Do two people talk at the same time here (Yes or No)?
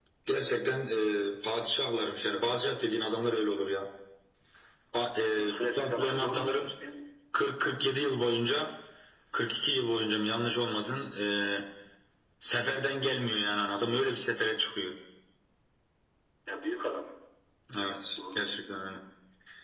Yes